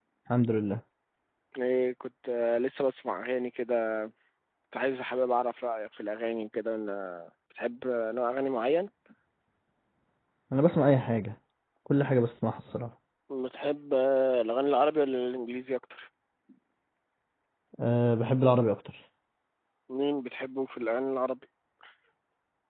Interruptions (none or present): none